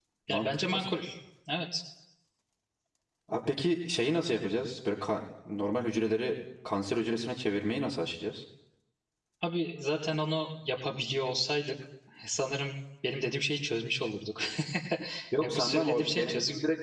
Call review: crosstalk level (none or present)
present